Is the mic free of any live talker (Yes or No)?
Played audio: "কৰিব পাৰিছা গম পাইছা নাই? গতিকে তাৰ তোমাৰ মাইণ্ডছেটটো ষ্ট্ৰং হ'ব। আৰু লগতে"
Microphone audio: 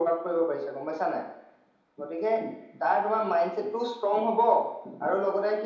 Yes